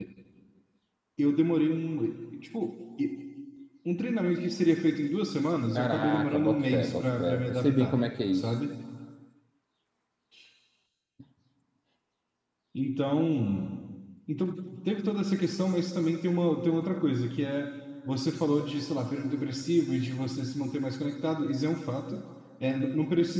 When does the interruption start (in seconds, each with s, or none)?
5.8 s